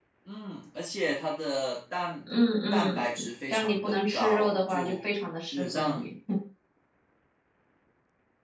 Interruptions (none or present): present